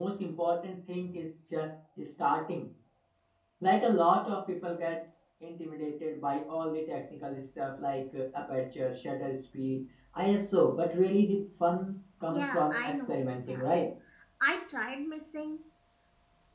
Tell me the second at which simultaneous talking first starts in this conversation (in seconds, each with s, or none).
12.3 s